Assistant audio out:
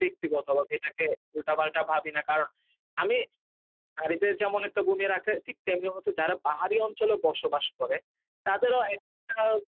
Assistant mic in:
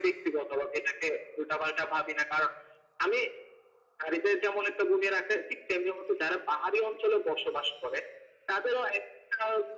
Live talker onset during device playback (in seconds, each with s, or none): none